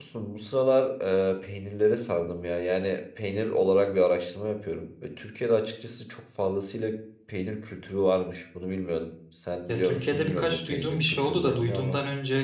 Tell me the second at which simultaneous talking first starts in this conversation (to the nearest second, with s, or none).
10 s